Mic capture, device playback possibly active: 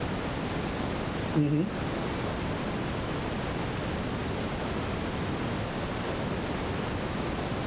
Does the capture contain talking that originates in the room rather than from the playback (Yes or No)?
Yes